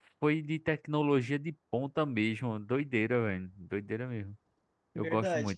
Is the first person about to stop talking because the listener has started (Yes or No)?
Yes